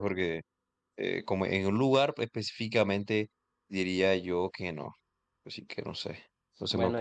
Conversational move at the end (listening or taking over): taking over